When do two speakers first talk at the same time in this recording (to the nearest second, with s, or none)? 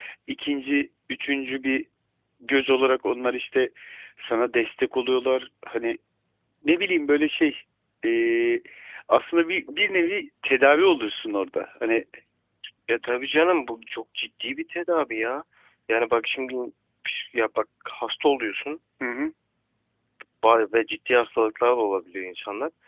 none